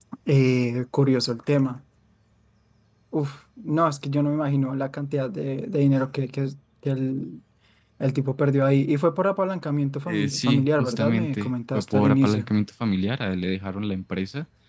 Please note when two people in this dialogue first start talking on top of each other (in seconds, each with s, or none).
10.1 s